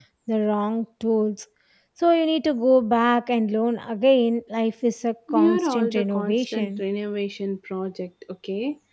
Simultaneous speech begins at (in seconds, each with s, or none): 5.3 s